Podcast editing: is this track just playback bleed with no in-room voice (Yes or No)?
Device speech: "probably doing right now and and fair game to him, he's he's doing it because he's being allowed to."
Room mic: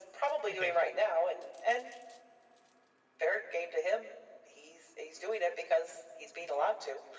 No